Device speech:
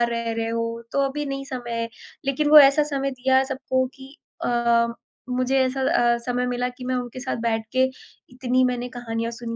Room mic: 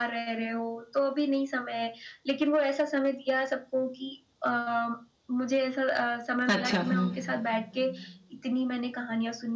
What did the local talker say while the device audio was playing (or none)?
अच्छा, हुँ।